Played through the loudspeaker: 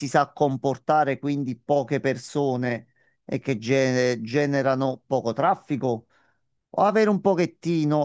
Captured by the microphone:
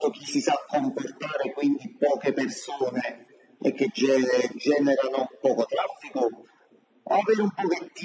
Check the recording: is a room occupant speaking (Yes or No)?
No